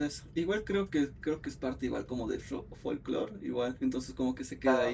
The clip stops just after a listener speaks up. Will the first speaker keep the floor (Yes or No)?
No